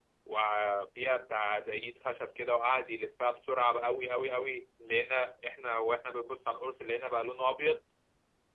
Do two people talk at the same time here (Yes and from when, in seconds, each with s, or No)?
No